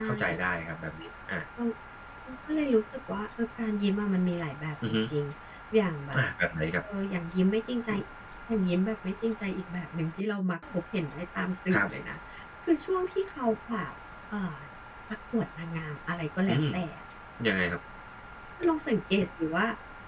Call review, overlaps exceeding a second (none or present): none